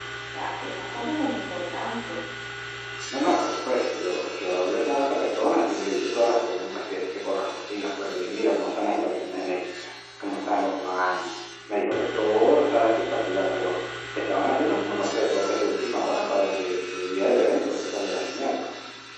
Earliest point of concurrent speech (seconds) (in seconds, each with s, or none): none